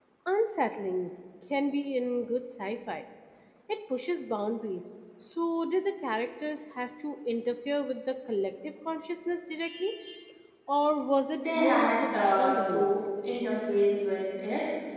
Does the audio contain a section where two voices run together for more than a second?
Yes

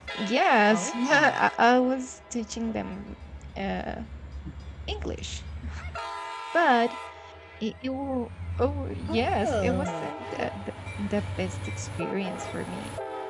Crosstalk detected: Yes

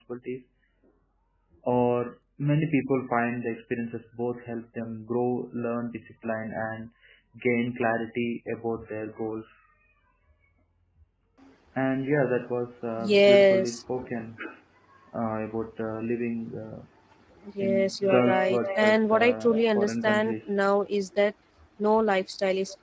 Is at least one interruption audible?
Yes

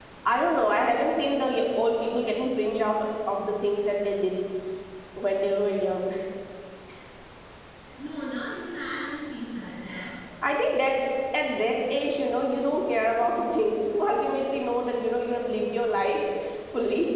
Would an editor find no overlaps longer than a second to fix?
Yes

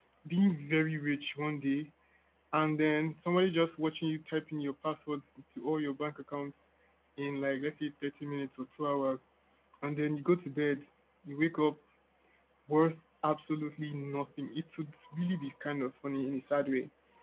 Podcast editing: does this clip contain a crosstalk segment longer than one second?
No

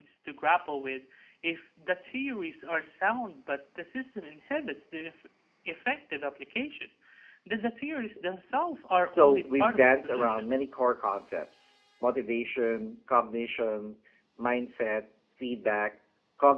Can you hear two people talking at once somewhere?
Yes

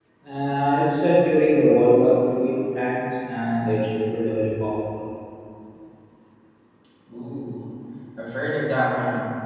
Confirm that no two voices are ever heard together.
Yes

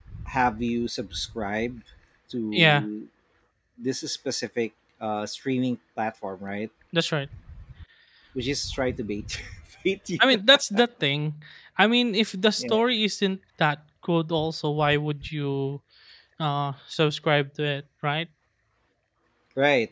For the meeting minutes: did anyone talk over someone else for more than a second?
No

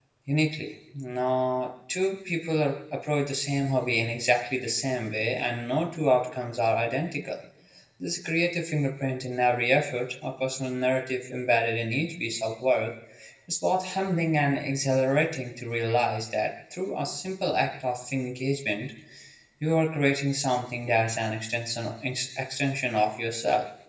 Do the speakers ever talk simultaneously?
No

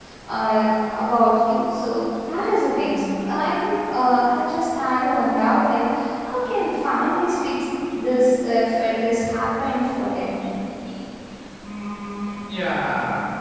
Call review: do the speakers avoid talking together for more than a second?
Yes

